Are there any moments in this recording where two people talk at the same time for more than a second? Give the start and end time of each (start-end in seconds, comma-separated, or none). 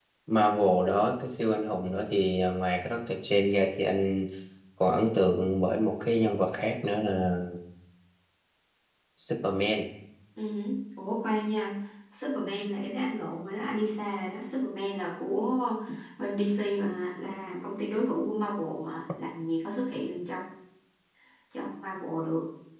none